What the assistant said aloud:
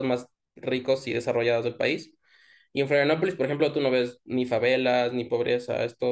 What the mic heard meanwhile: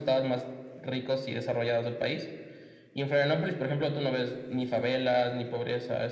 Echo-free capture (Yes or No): No